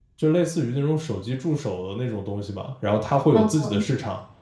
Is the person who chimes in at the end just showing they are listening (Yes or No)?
Yes